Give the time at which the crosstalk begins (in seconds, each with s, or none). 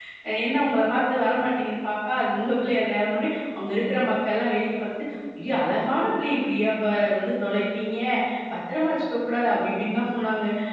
none